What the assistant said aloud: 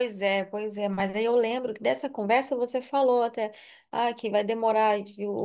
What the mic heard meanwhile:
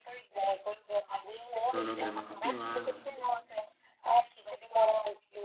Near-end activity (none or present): present